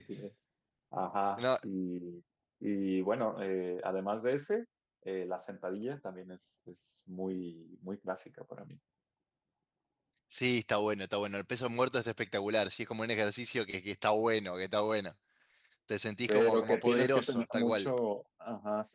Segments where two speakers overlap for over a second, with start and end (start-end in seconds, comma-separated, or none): 16.3-17.9